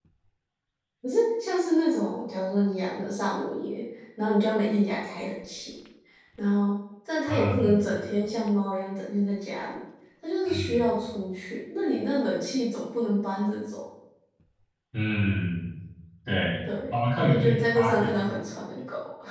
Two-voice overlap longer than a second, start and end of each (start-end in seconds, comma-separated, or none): 16.9-18.1